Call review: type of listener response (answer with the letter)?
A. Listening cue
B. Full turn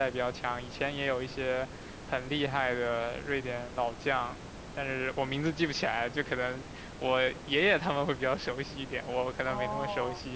B